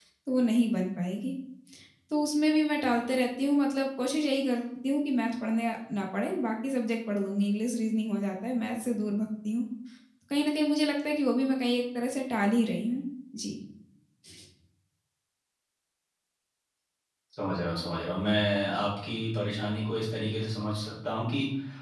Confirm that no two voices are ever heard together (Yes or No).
Yes